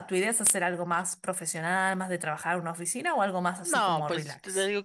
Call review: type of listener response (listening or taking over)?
taking over